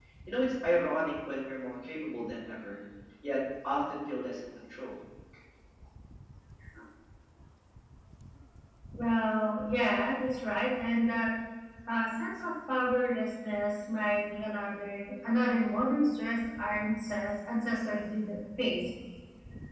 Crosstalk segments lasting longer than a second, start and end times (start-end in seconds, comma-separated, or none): none